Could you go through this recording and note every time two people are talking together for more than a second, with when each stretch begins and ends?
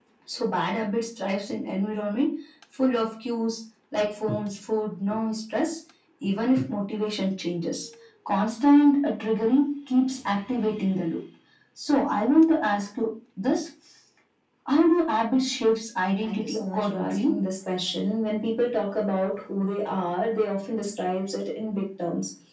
16.2-17.4

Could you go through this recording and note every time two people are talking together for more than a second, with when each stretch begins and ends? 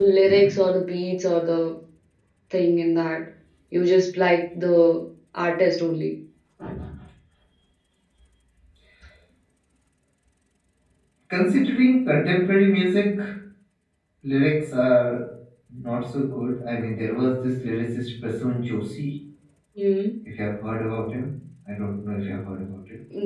none

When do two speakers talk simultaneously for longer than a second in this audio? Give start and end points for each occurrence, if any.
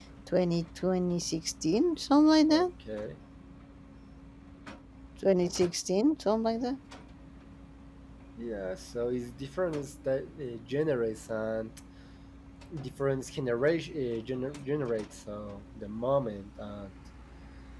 none

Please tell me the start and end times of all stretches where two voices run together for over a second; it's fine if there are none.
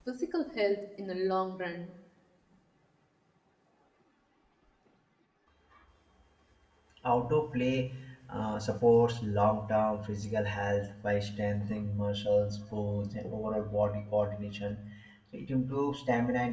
none

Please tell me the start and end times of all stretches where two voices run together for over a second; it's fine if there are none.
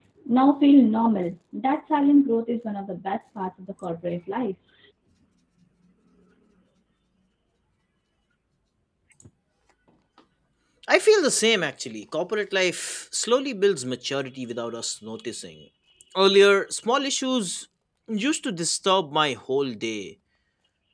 none

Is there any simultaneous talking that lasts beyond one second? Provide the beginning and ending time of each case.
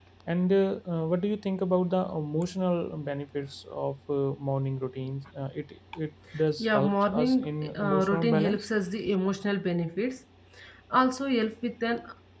6.6-8.7

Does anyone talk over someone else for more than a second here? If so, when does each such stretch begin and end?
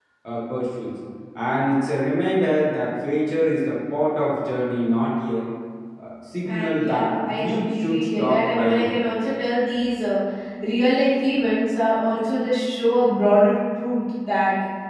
6.5-8.9

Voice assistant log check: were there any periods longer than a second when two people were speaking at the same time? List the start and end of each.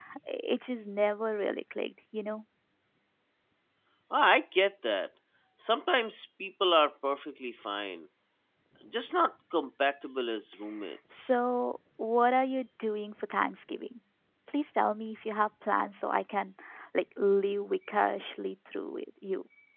none

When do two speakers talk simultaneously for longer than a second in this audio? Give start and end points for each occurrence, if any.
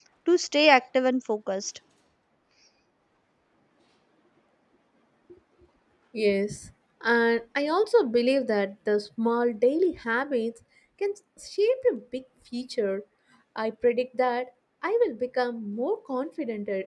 none

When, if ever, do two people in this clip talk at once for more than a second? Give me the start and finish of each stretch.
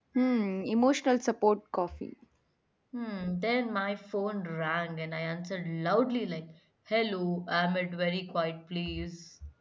none

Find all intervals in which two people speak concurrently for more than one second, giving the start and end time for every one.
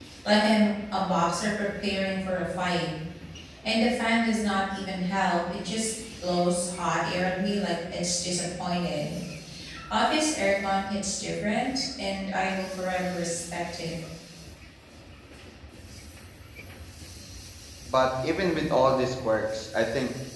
none

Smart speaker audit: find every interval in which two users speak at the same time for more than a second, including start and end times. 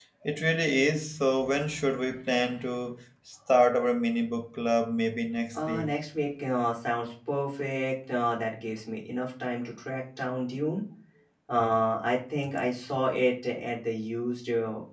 none

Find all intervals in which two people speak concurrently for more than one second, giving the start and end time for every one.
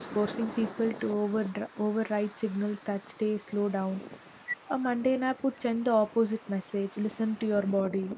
none

